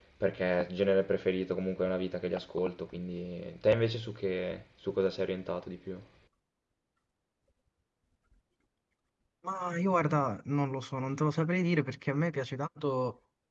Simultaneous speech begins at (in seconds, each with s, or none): none